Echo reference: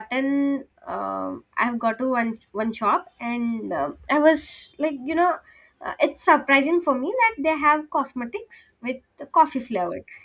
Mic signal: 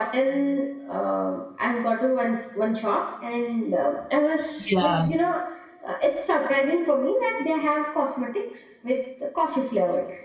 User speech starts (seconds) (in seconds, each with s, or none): 4.7 s